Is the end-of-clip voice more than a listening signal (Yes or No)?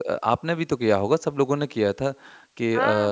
No